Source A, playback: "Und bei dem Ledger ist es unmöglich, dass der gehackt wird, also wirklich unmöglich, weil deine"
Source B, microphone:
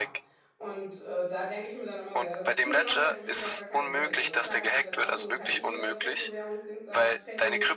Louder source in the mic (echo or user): echo